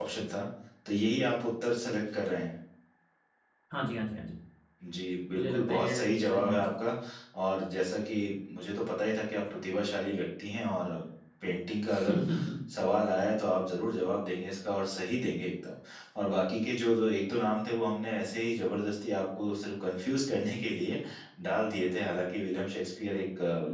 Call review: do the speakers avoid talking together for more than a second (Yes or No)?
No